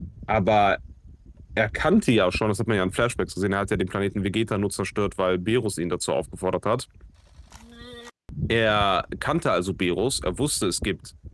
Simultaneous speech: No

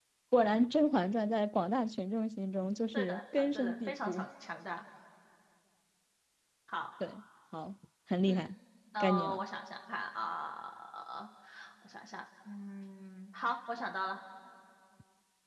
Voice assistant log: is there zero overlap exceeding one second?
No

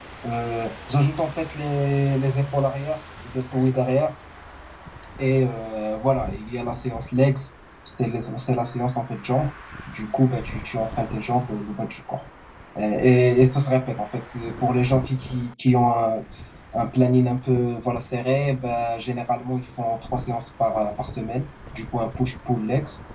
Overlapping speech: No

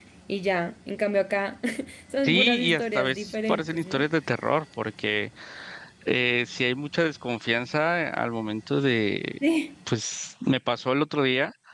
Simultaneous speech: Yes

